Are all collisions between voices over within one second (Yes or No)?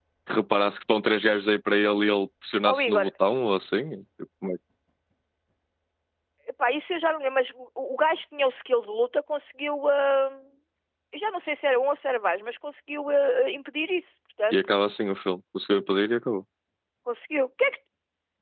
Yes